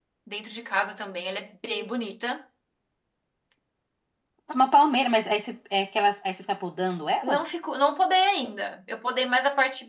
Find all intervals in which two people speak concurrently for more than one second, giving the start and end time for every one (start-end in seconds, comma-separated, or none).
none